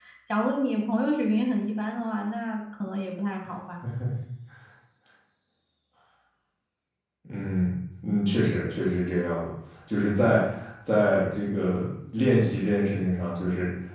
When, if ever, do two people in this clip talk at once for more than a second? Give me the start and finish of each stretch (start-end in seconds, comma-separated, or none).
none